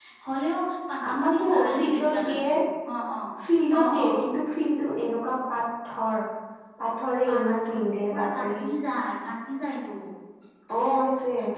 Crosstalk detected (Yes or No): Yes